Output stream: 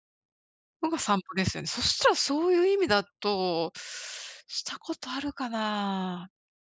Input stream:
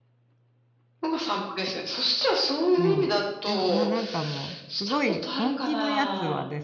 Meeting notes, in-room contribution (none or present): present